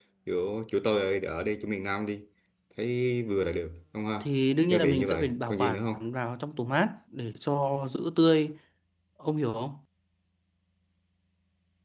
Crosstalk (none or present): present